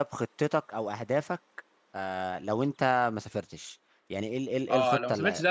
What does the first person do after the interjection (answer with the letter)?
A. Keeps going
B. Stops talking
B